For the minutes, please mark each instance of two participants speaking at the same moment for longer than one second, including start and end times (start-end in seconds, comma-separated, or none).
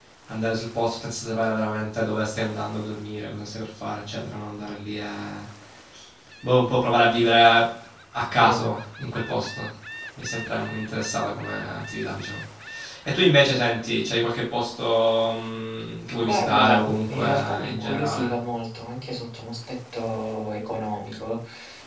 16.2-18.4